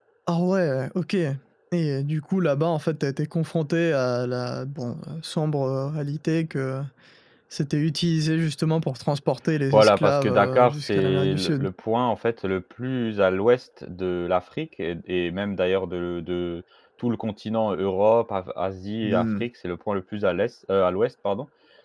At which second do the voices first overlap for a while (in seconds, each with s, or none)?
9.7 s